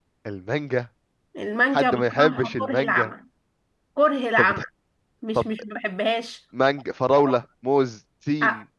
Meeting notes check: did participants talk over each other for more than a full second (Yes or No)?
Yes